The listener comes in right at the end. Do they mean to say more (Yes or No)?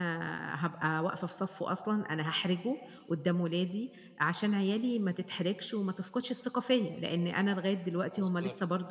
No